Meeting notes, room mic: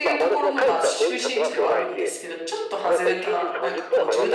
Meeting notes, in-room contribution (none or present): present